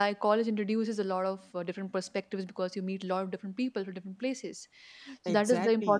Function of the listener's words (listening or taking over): listening